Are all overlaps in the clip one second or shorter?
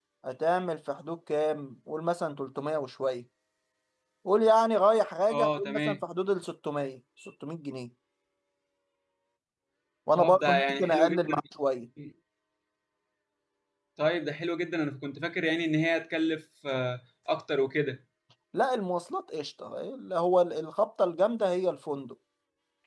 No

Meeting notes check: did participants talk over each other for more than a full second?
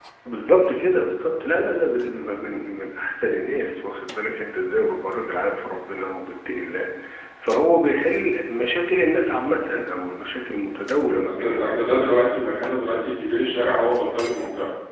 No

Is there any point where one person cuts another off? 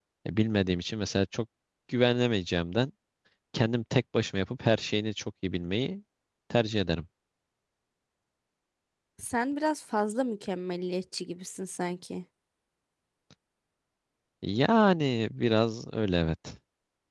No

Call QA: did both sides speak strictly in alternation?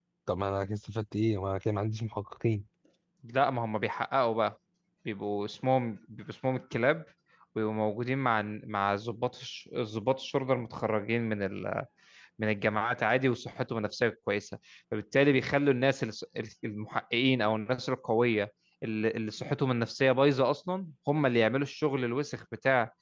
Yes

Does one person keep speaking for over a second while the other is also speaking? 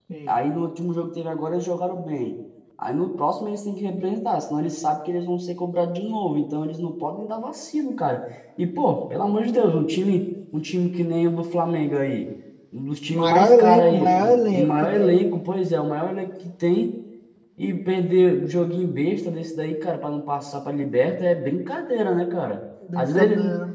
Yes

